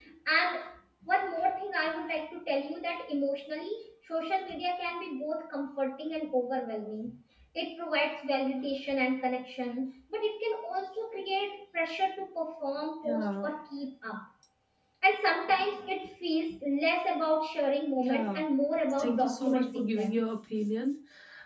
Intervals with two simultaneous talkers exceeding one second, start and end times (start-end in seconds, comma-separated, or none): 19.0-20.3